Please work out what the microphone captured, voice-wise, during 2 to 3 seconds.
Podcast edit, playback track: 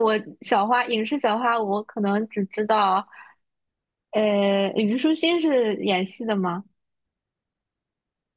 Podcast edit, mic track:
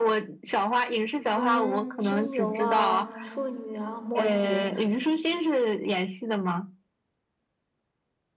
both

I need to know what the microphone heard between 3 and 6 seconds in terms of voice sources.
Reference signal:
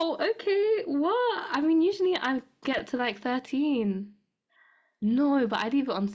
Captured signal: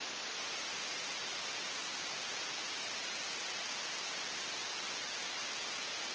neither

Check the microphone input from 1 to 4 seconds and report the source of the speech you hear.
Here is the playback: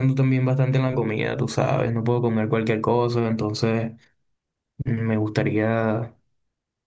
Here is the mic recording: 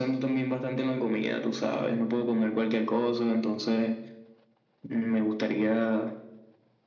echo only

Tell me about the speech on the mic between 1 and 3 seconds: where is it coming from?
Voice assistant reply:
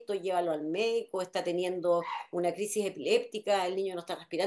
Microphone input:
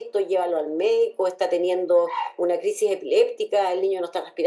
echo only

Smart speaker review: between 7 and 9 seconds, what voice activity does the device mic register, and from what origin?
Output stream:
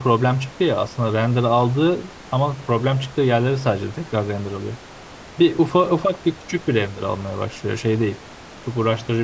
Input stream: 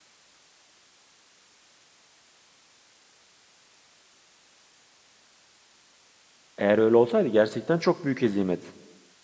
user only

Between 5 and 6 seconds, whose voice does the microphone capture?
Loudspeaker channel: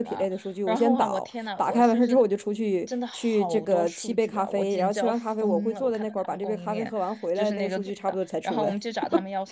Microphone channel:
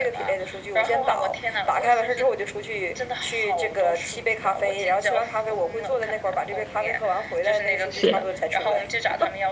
echo only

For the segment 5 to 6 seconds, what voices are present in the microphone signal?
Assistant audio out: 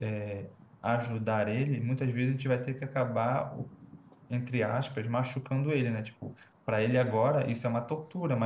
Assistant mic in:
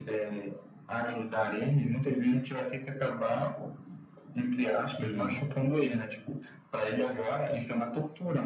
both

